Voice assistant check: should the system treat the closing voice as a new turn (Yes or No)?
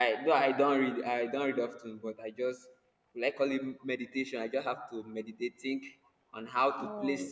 No